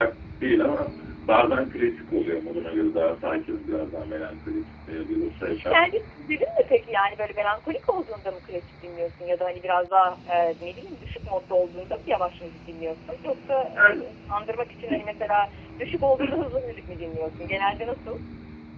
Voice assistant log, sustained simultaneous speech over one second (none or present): none